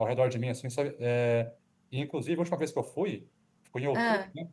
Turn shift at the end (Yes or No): No